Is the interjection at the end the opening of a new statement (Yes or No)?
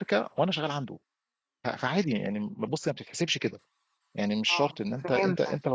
No